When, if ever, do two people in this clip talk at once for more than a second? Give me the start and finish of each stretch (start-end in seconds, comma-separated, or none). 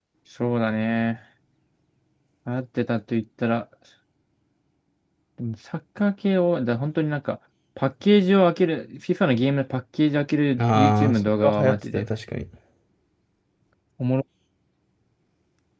10.6-12.0